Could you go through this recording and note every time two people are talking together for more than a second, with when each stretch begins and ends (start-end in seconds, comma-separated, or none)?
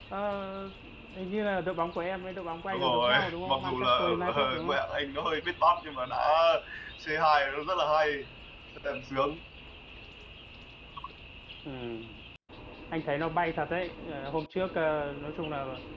2.7-4.8